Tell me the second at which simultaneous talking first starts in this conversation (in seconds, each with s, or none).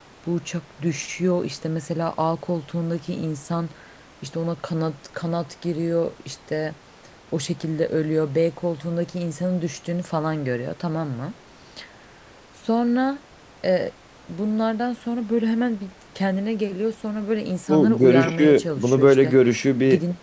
17.7 s